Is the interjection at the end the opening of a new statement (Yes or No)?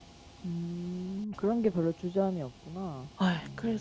Yes